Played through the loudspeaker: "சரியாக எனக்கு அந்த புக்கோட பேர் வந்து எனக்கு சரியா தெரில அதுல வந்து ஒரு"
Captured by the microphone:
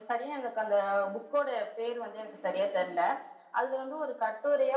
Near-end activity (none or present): none